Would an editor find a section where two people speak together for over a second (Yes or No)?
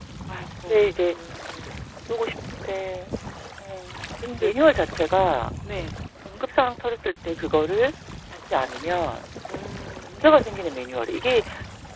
No